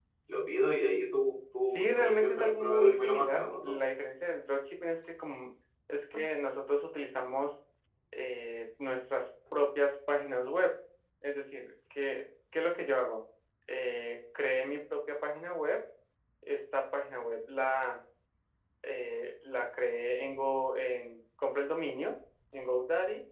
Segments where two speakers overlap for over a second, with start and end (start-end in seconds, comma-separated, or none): 1.7-3.7